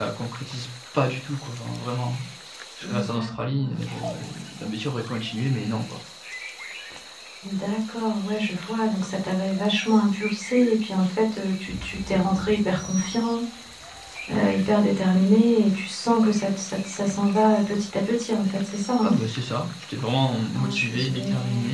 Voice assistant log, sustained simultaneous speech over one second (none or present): present